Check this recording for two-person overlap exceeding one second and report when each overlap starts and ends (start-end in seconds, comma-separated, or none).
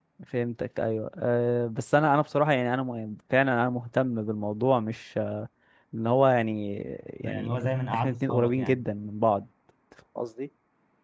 7.2-8.8